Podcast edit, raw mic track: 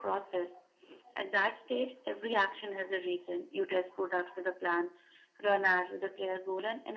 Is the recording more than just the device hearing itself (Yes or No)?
No